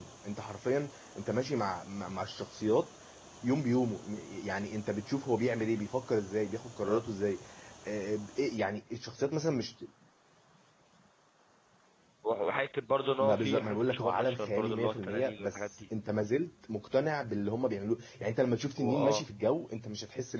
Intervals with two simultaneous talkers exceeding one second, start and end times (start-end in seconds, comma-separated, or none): 13.2-15.8